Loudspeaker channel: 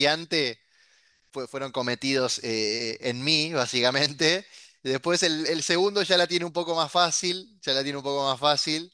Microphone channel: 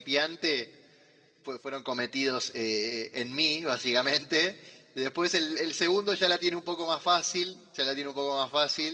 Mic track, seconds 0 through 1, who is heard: echo only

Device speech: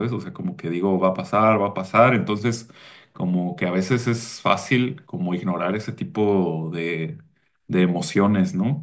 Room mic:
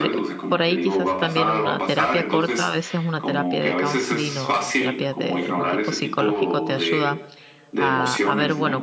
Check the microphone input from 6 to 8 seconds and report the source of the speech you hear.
both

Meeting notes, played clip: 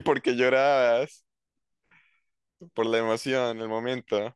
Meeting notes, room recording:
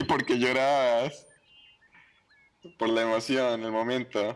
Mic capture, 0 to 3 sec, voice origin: echo only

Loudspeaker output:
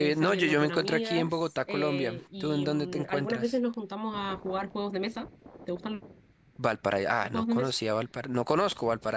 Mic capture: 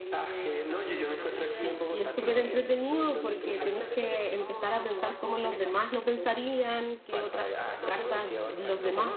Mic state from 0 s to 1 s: echo only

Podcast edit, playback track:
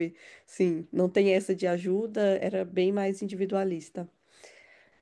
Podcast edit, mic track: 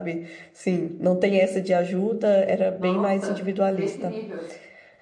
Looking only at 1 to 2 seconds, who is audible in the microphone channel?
echo only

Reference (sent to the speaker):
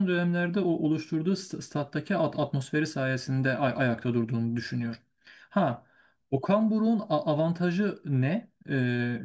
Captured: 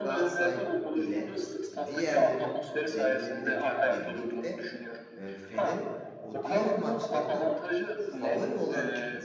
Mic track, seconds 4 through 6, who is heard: both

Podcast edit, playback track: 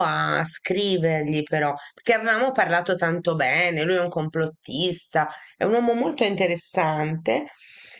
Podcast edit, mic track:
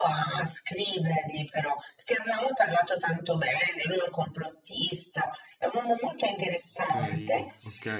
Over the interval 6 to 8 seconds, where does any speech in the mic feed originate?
both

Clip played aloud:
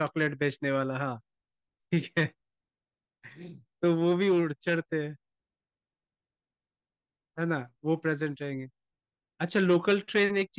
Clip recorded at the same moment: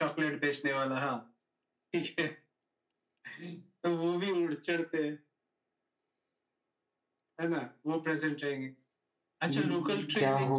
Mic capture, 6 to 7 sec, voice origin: neither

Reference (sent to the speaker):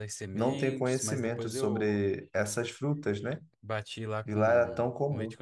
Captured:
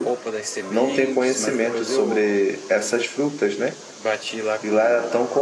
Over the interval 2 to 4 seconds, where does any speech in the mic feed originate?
echo only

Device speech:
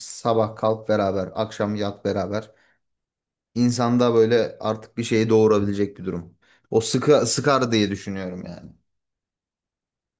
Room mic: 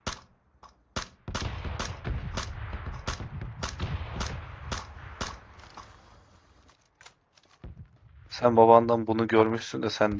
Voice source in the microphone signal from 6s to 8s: neither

